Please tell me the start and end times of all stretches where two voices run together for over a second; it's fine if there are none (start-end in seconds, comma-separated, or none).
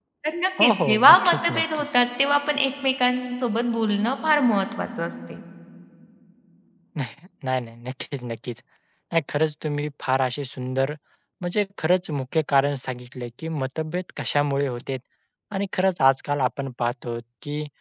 0.6-1.9